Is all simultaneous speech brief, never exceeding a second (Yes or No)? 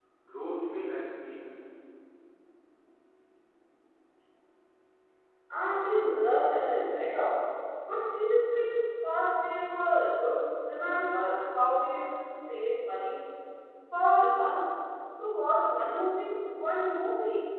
Yes